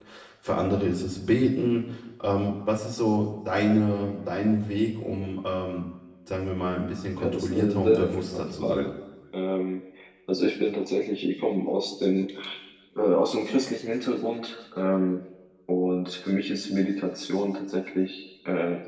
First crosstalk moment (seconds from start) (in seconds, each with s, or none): 7.2 s